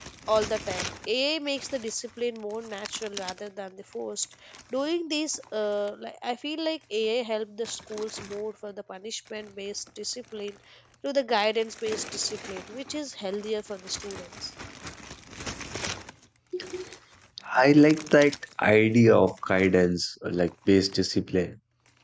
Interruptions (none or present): none